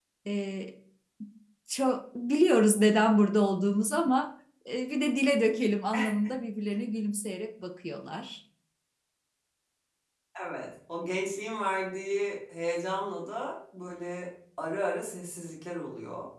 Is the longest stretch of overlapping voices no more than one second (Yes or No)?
Yes